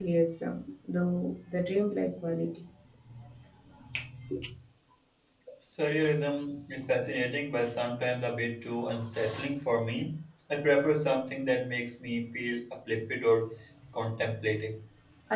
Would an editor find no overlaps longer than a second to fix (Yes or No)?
Yes